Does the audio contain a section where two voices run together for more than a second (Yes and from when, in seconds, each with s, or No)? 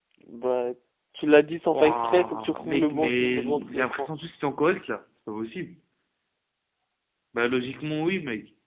Yes, from 1.7 s